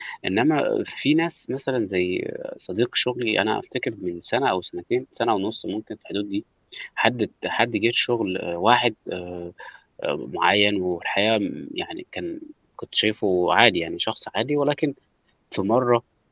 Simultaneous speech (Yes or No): No